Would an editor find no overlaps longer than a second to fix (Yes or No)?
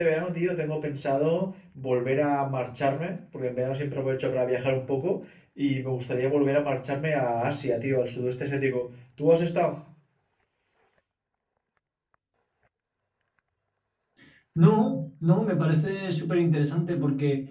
Yes